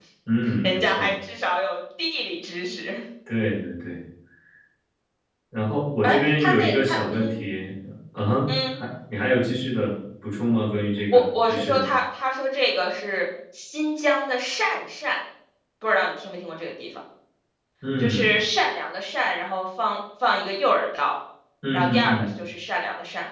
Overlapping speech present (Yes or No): Yes